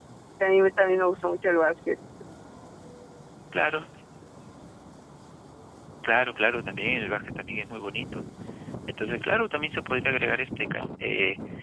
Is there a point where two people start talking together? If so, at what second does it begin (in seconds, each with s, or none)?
none